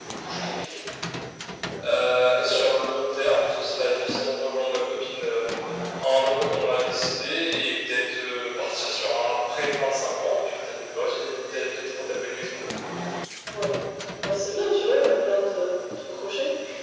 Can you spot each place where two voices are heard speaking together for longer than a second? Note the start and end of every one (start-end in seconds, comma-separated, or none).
none